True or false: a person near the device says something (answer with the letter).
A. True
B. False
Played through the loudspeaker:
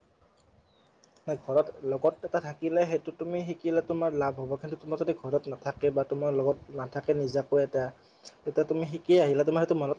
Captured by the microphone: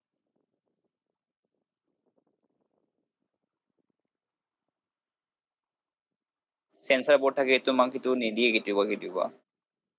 A